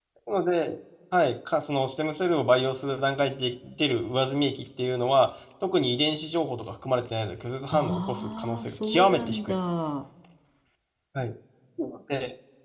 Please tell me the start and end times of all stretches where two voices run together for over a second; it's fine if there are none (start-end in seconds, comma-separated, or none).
7.7-9.6